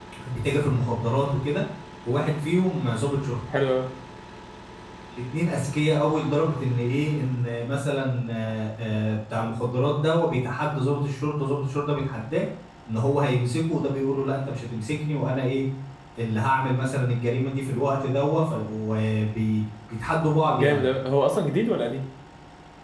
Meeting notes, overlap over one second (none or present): none